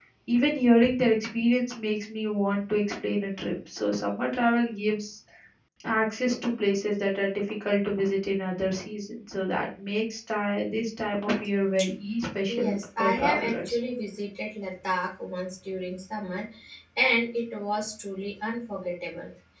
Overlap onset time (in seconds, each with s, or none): 12.5 s